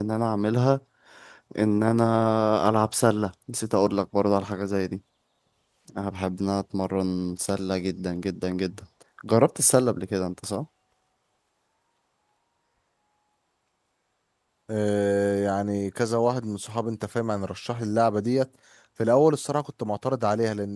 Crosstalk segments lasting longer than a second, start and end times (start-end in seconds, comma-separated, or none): none